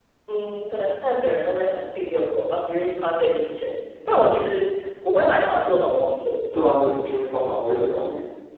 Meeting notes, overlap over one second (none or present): none